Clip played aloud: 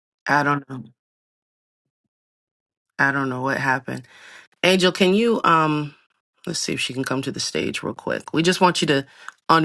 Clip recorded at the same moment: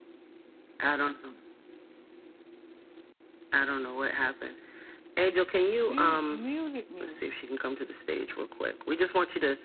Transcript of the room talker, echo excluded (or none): You muted me.